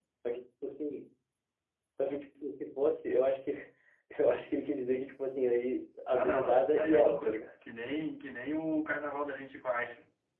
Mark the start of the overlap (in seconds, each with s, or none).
6.1 s